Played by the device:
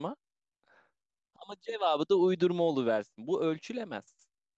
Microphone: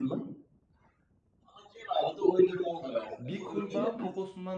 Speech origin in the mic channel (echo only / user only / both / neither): both